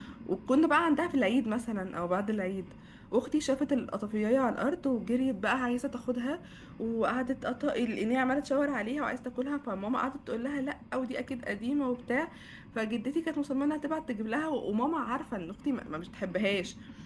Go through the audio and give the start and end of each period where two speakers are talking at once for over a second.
none

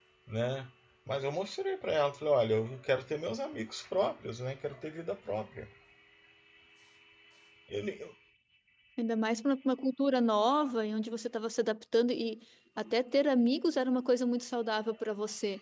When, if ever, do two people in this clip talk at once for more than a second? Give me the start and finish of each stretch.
none

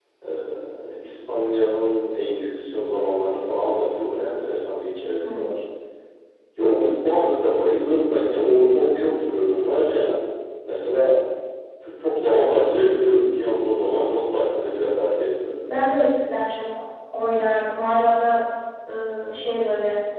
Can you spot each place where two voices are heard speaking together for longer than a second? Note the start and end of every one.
none

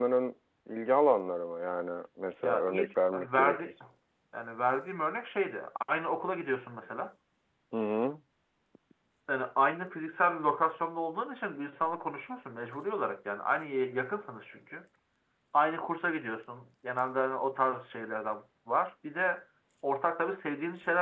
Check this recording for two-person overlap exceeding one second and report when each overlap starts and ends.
2.4-3.7

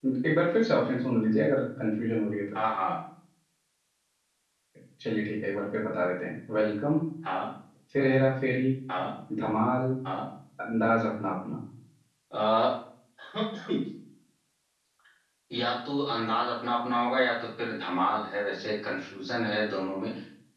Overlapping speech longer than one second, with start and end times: none

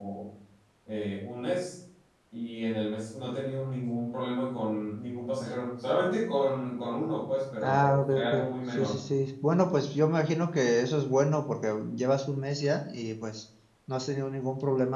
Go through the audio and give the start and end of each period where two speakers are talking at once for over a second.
7.6-9.0

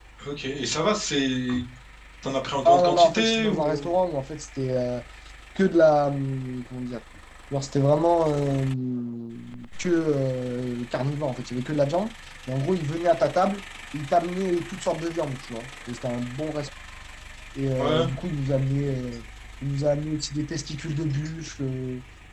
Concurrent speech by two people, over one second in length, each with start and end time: 2.6-3.9

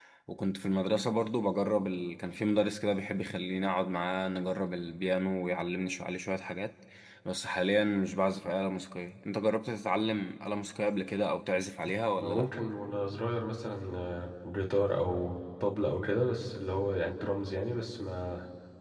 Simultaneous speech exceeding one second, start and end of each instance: none

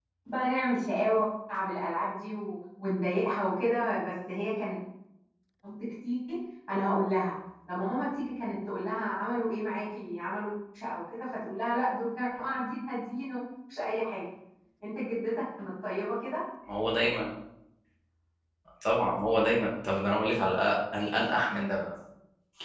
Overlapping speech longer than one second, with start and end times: none

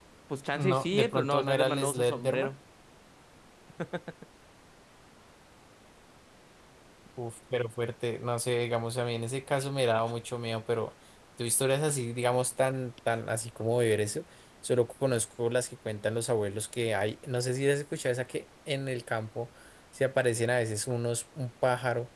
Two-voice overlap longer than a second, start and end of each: 0.6-2.5

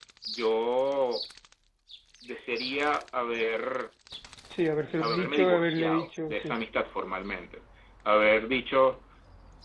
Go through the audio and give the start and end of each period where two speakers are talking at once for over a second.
5.0-6.5

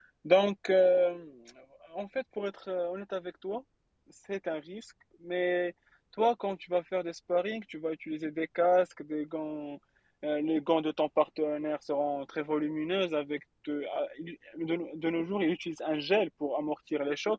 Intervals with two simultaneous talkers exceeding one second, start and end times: none

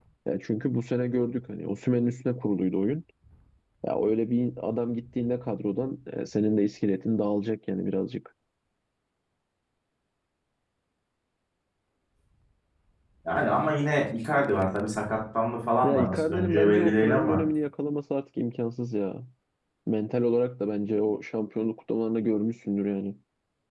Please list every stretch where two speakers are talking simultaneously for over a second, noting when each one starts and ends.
15.8-17.4

